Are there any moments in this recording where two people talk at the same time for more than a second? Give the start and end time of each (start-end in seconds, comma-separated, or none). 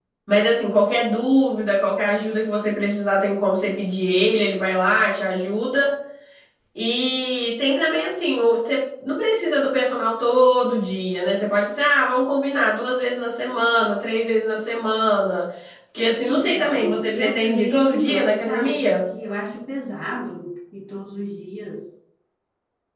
16.2-19.0